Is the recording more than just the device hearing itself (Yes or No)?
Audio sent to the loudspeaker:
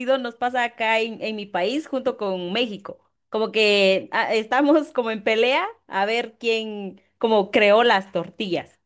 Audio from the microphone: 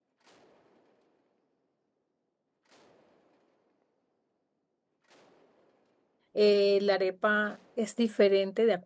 Yes